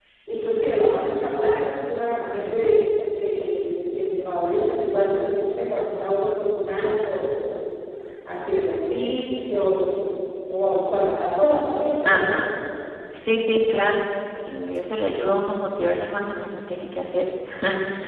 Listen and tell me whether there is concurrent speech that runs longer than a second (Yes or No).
No